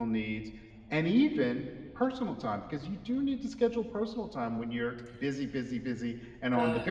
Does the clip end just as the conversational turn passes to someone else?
Yes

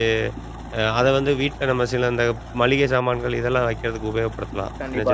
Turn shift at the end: Yes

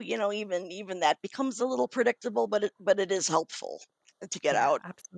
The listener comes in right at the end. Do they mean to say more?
Yes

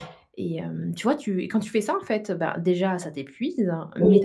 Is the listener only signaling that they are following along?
Yes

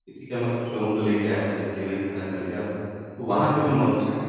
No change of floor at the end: Yes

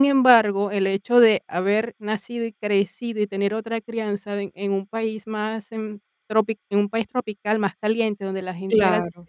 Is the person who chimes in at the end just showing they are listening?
Yes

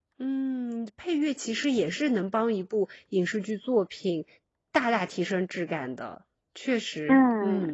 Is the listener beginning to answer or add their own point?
Yes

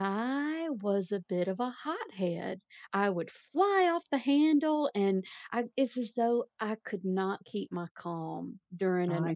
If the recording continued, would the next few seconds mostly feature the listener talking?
No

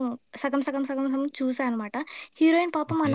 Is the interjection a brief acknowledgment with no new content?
Yes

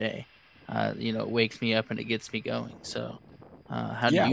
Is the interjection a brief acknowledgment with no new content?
No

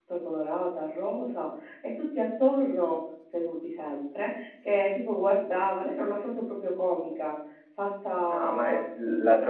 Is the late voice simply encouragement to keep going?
No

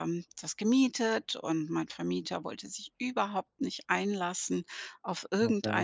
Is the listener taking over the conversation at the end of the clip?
No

